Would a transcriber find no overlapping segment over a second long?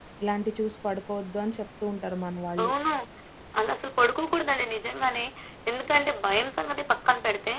Yes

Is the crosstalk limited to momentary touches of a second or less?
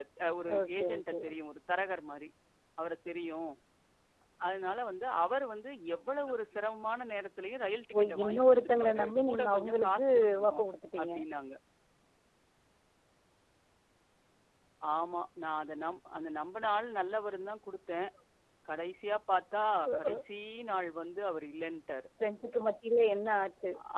No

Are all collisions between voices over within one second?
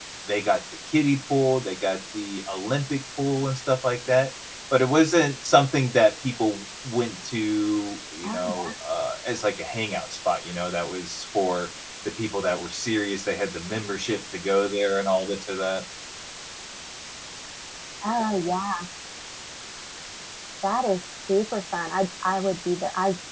Yes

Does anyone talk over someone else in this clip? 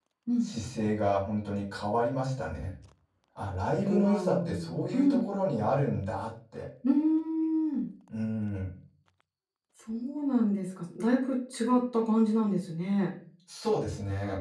Yes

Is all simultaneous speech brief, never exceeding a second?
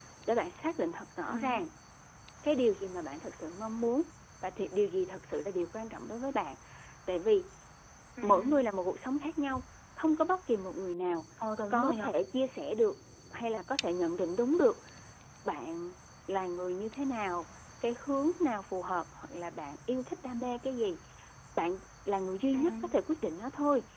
Yes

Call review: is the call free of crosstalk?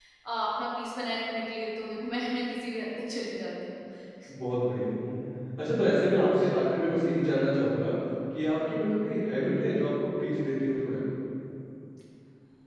Yes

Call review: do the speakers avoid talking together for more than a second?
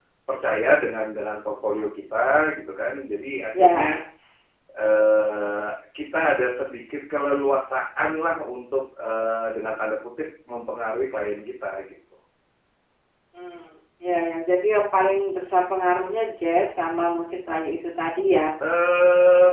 Yes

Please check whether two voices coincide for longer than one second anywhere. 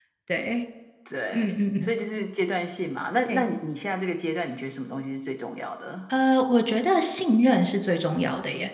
No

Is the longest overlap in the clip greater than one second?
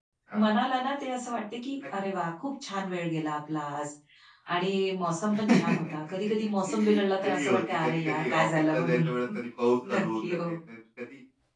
Yes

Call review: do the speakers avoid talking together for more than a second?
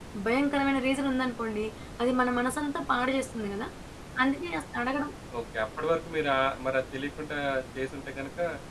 Yes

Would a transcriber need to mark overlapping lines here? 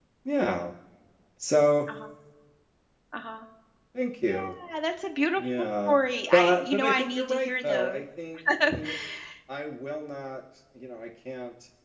Yes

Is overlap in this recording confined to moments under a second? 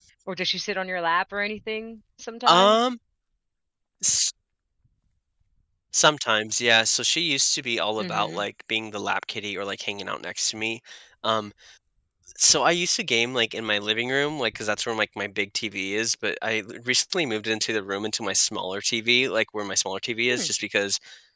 Yes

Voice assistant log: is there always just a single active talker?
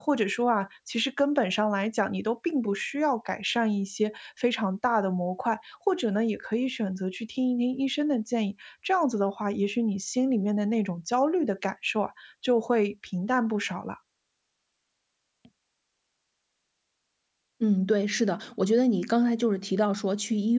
Yes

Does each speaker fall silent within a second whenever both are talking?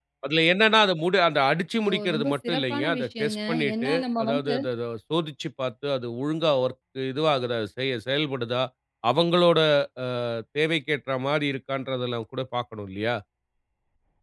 No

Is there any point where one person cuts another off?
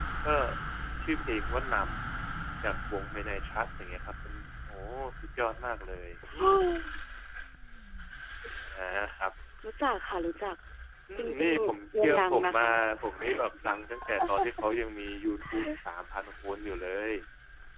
Yes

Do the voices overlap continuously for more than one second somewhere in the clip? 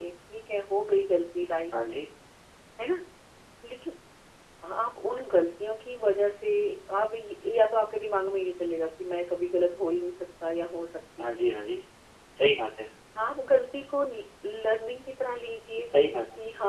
No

